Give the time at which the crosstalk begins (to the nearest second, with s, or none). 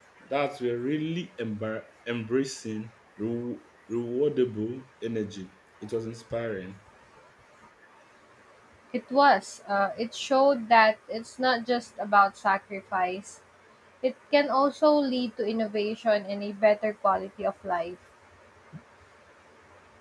none